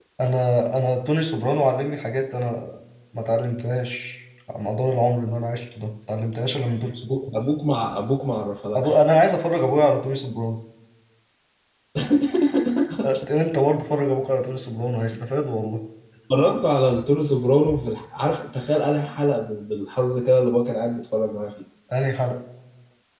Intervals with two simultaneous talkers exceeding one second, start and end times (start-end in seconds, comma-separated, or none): none